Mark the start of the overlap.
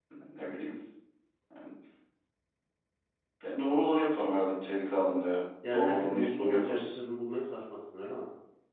5.6 s

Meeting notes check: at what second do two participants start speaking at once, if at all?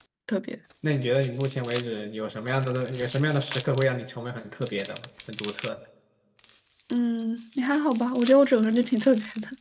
none

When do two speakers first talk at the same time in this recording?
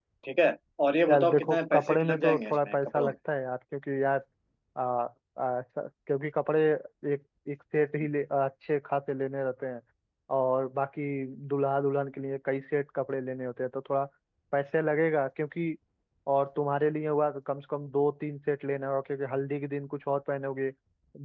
1.1 s

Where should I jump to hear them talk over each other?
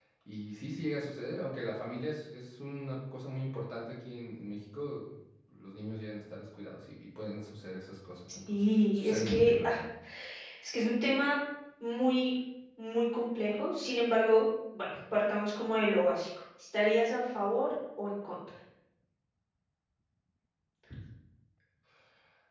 8.5 s

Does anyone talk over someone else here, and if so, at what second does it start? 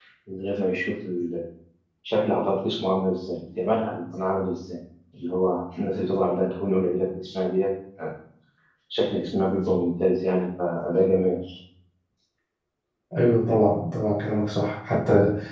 none

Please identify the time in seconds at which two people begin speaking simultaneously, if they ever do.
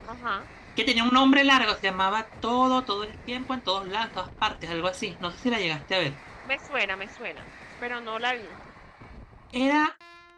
none

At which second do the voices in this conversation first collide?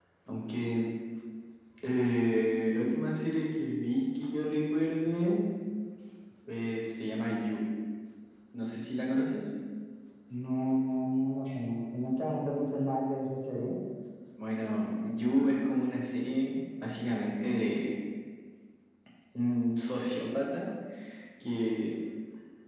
none

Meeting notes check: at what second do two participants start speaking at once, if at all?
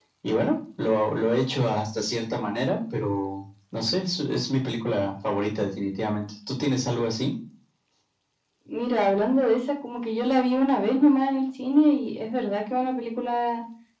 none

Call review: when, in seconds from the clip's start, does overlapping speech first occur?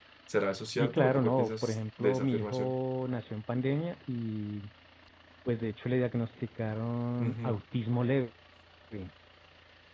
0.8 s

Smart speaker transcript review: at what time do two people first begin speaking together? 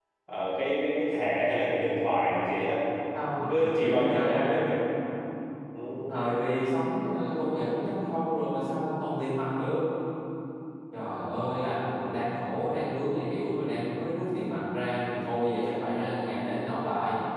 3.5 s

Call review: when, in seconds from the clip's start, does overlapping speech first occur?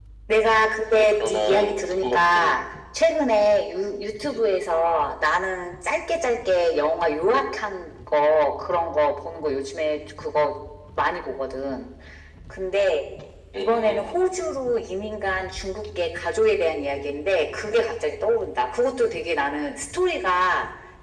1.2 s

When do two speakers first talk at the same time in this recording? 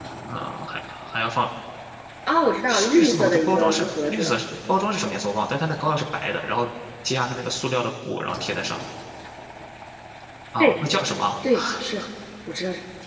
2.7 s

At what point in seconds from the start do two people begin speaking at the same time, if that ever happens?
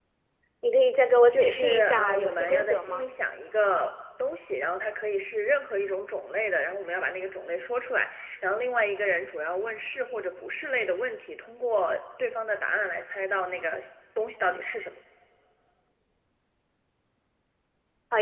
1.3 s

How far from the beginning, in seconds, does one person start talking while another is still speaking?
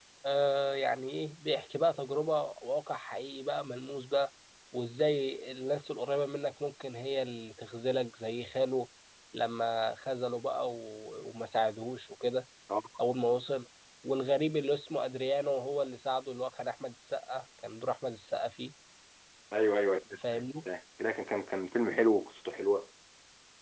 none

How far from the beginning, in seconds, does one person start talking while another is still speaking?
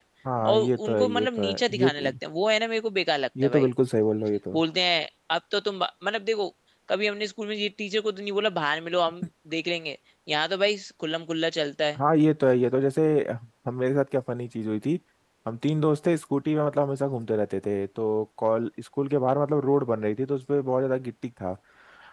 0.5 s

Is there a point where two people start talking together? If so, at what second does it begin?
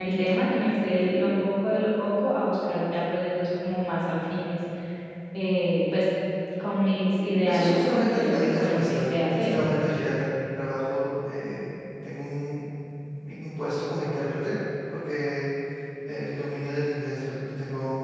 7.4 s

